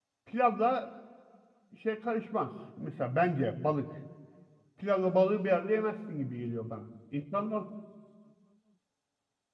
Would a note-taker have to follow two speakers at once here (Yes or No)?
No